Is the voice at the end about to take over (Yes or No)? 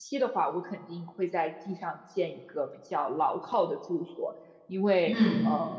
No